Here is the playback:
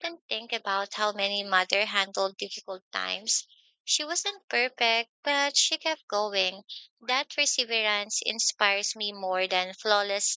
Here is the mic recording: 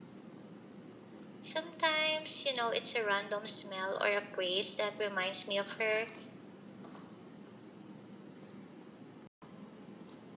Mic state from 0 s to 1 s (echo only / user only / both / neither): neither